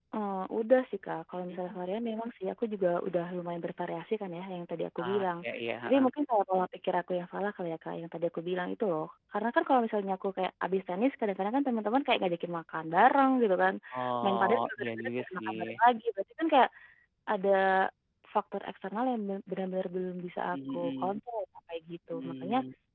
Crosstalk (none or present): present